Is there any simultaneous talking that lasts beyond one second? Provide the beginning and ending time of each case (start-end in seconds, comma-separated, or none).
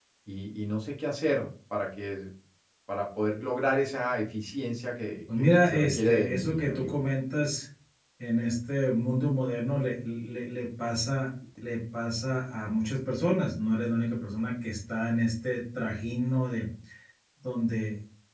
5.4-7.0